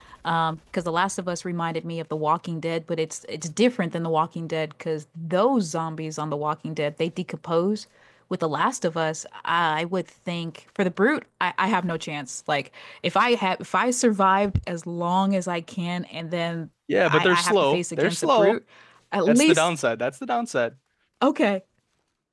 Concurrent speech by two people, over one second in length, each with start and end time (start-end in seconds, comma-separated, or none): 17.0-18.5